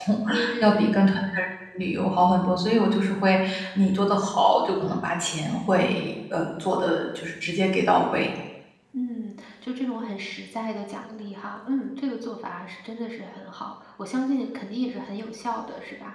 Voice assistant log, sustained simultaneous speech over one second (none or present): none